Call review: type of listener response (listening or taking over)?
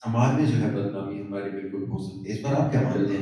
taking over